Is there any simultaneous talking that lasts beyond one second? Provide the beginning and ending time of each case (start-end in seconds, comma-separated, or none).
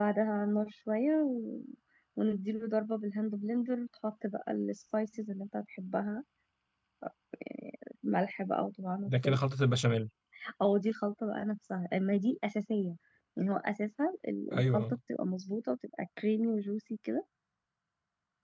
none